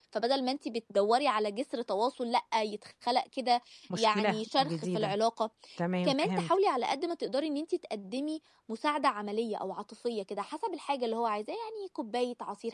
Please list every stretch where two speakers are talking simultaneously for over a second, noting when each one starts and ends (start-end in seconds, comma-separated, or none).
3.9-5.2